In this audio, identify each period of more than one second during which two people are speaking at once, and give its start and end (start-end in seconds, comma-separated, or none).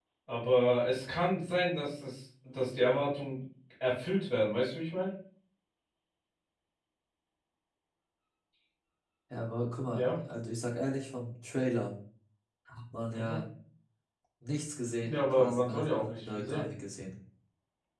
15.0-16.6